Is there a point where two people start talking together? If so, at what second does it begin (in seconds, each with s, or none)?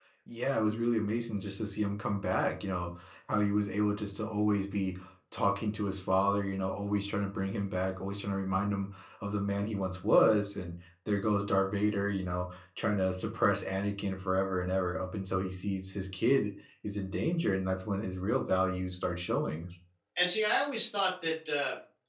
none